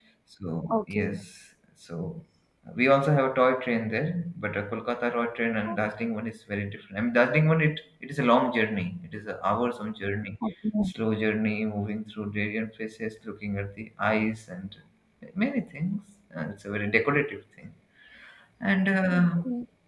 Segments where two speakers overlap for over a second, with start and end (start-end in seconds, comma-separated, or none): none